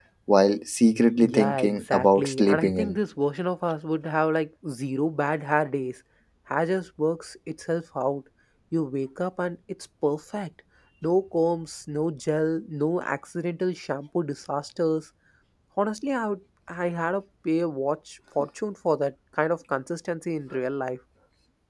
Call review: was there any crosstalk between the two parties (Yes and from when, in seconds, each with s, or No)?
Yes, from 1.2 s